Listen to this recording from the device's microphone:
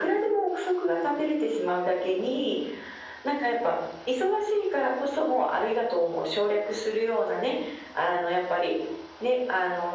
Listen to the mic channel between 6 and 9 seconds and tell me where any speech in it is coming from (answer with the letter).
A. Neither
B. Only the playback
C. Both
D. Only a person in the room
B